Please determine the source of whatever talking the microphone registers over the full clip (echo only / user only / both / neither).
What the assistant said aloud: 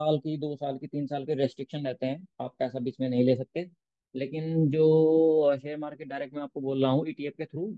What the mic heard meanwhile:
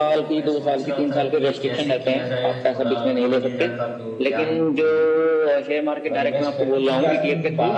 both